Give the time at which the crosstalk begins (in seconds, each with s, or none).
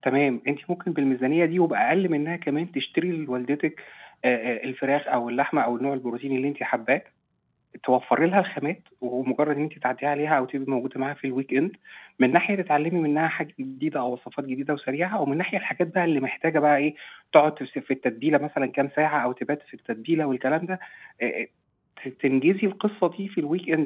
none